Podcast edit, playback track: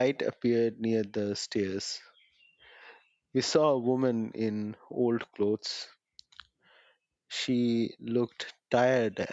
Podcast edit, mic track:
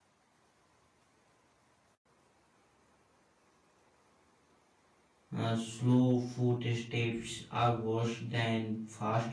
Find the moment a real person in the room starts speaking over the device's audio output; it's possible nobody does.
5 s

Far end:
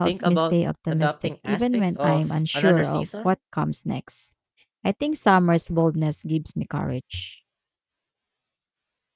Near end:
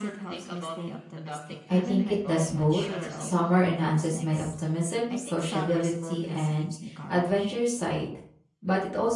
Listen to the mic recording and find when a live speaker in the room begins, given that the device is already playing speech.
2 s

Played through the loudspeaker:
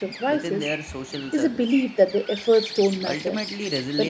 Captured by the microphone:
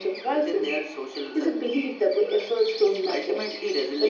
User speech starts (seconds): none

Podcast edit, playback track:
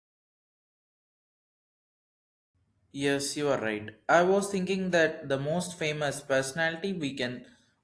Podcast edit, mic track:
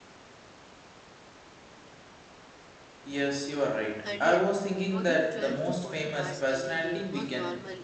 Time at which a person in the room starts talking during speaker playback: 4 s

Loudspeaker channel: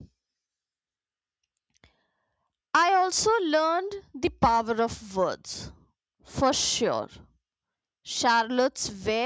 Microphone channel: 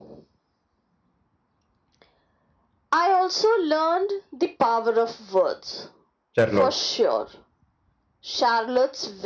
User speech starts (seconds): 6 s

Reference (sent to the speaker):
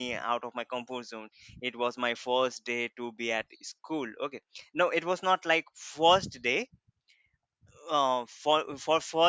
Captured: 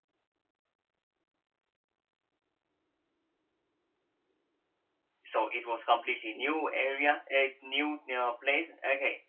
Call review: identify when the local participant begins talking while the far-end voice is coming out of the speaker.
5 s

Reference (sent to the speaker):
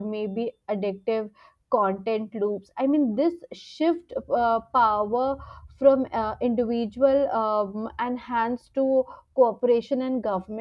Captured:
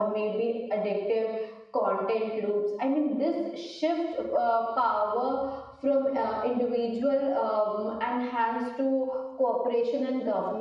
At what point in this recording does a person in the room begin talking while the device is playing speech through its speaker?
none

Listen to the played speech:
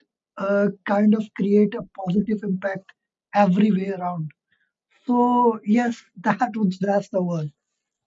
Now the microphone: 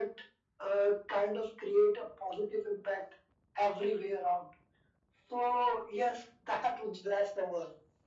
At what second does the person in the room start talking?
none

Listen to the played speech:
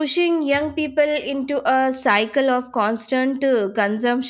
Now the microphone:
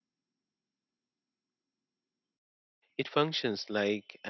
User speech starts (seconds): 3 s

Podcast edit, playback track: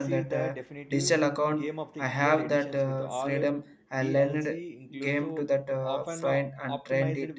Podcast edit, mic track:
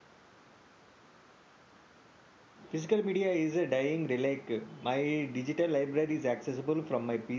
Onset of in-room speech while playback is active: 3 s

